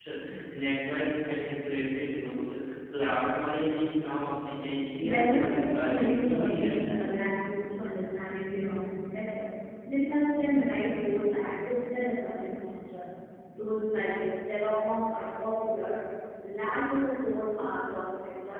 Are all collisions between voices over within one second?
No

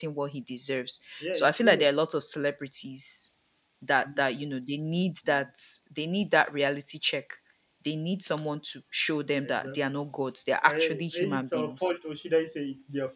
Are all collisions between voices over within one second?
No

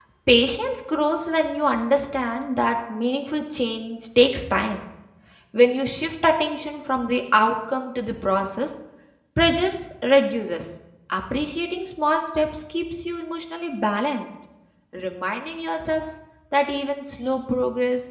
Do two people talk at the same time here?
No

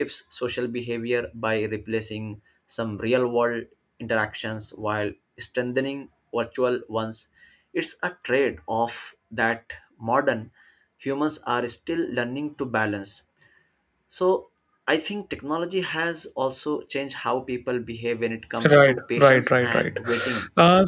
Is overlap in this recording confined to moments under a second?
No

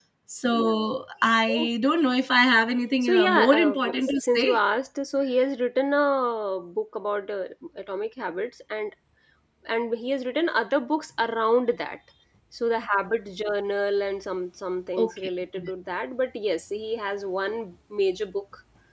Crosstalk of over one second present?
Yes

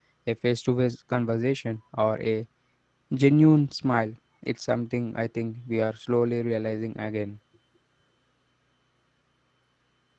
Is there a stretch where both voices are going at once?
No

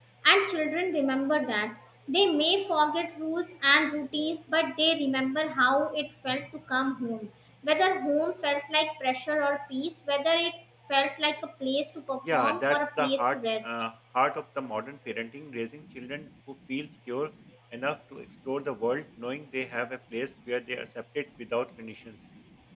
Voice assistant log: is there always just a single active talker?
No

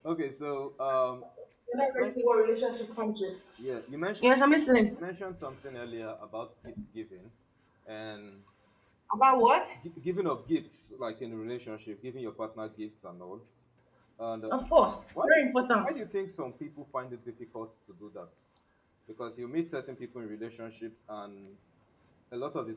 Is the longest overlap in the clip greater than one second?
No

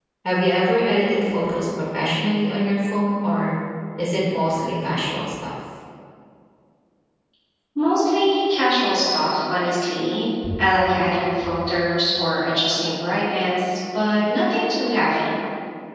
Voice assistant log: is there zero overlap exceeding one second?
Yes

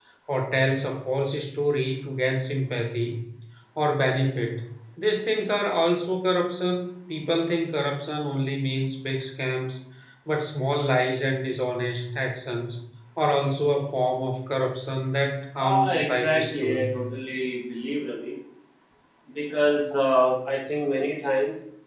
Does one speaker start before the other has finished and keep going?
Yes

